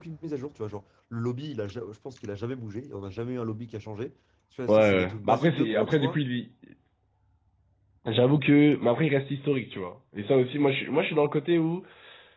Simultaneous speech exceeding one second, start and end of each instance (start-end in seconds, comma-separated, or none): 4.7-6.2